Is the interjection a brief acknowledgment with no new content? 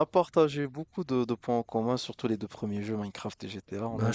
No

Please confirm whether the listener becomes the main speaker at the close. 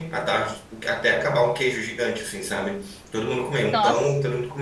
No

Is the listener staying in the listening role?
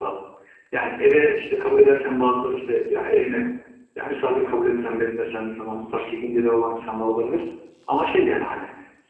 Yes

